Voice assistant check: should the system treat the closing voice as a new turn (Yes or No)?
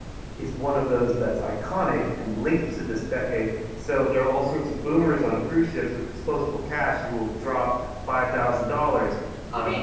Yes